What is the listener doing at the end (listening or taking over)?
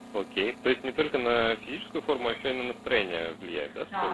taking over